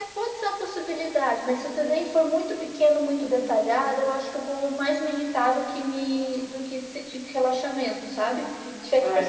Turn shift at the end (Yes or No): No